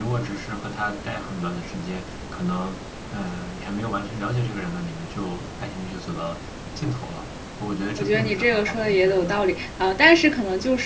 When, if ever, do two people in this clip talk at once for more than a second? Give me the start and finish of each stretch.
8.0-9.4

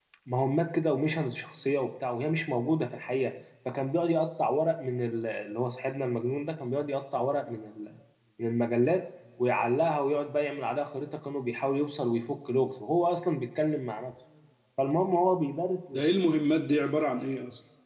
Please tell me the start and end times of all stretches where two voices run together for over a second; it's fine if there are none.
none

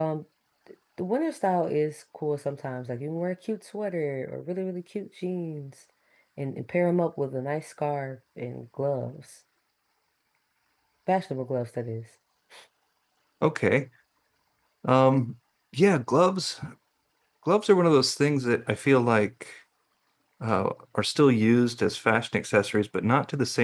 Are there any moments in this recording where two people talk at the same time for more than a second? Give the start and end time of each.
none

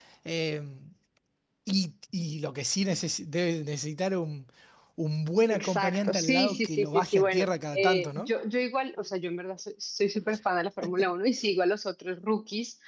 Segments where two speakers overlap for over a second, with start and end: 5.5-8.3

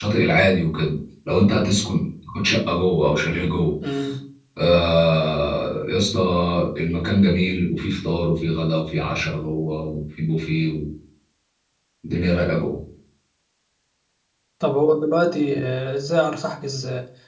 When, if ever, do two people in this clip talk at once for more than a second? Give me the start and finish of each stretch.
none

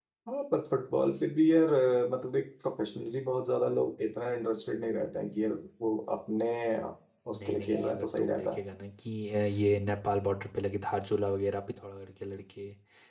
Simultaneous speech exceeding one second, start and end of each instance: 7.3-8.6

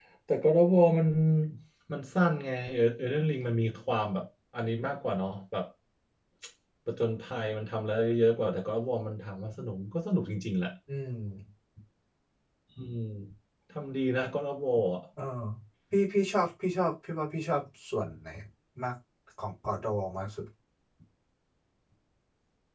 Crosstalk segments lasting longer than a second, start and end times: none

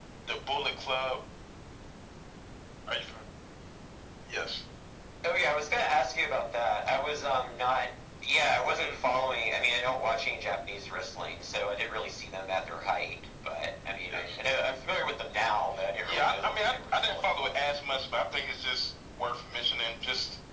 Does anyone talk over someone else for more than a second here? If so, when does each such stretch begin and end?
16.0-17.6

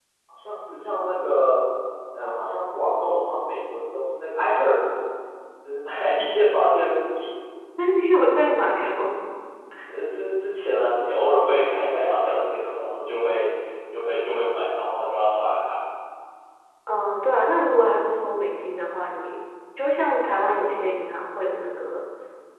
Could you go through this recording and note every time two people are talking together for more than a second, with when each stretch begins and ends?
none

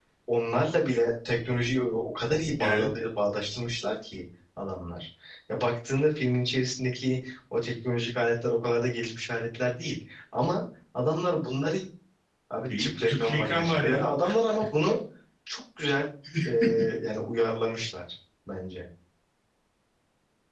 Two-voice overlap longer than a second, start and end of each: 12.8-14.0

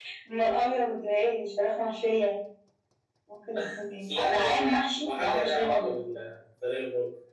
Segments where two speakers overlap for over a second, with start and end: 4.1-6.0

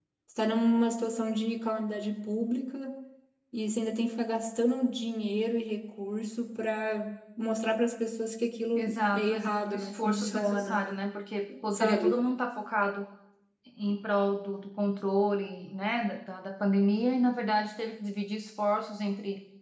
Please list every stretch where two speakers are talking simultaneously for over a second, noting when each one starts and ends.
8.8-10.8

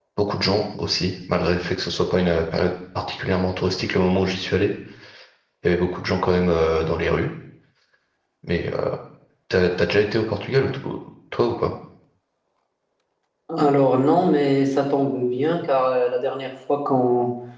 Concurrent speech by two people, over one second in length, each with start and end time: none

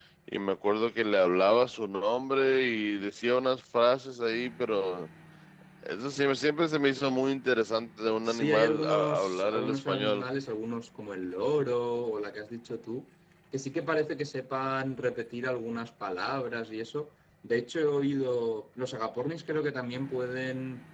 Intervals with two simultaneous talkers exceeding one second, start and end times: 8.2-10.2

